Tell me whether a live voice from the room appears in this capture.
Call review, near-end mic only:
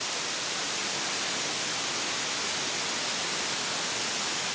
No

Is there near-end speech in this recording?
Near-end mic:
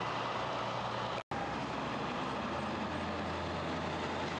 No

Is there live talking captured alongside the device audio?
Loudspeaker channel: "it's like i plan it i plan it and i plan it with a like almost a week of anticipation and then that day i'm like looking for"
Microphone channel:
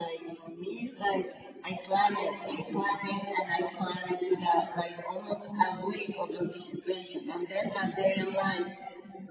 No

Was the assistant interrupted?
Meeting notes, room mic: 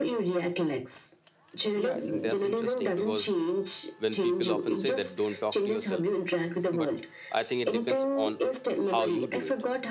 Yes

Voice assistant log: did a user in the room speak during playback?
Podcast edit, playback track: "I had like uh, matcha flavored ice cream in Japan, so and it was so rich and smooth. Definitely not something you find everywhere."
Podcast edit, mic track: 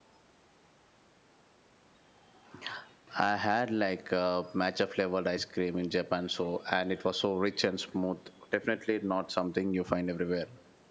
No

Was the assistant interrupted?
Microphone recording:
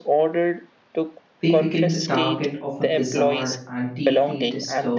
Yes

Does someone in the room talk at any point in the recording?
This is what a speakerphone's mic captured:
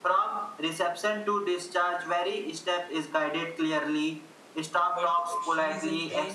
Yes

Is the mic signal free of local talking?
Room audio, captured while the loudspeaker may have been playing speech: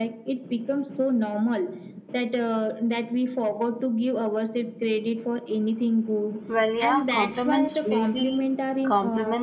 No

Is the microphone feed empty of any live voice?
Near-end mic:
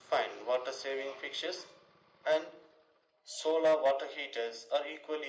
Yes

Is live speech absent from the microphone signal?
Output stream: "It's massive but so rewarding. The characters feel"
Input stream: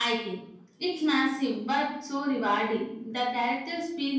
Yes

